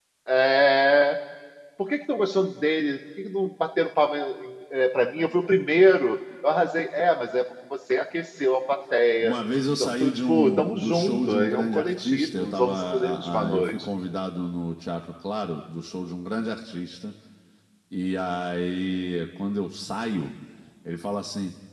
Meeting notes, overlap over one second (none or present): present